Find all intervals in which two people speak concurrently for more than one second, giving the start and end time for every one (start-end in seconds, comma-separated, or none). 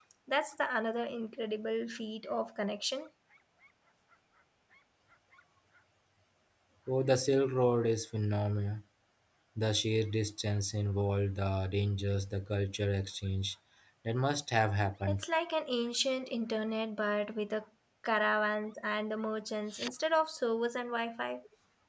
none